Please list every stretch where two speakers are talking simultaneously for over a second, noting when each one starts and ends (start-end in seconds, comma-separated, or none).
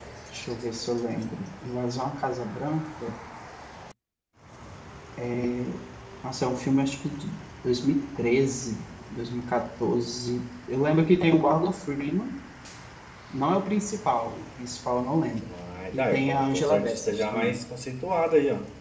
15.9-17.6